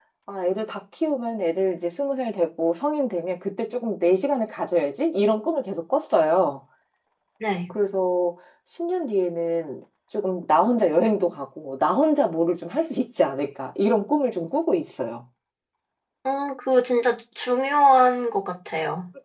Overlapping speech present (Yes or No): No